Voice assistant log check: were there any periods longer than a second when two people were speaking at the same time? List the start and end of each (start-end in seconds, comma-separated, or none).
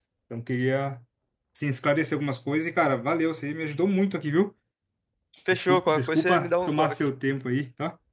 5.5-7.0